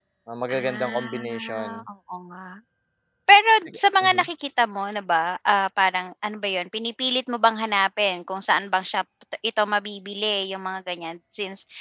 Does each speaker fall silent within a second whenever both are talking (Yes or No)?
No